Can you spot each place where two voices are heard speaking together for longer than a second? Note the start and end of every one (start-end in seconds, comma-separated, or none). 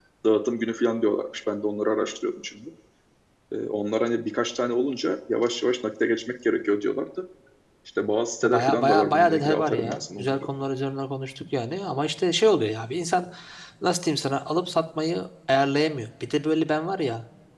8.4-10.4